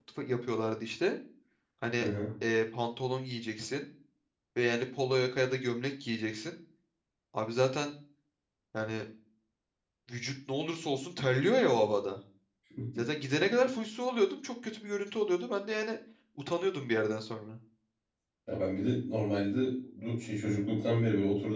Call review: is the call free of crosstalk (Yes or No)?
Yes